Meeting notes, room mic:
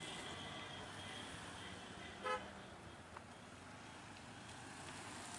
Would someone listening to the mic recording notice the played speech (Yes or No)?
No